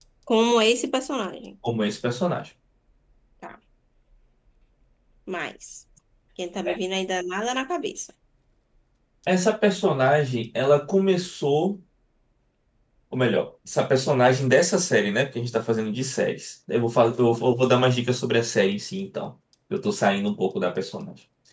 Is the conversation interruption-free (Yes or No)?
Yes